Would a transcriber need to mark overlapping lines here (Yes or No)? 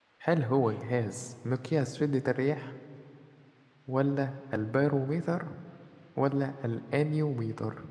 No